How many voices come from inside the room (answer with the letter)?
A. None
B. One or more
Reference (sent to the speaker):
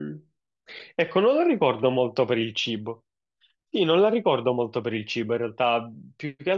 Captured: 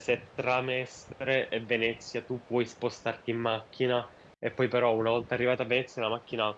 B